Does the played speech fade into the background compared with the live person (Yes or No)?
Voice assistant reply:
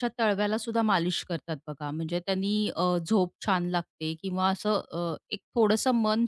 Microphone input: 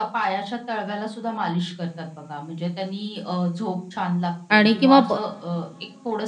Yes